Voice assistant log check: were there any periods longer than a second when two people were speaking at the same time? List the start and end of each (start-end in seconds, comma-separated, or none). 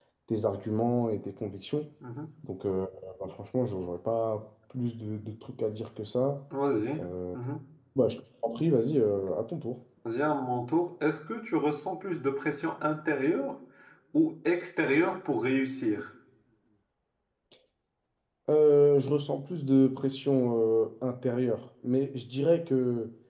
none